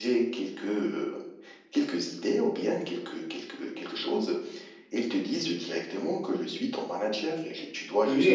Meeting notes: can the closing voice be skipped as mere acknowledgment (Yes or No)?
Yes